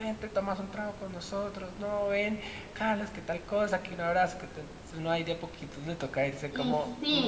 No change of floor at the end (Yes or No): No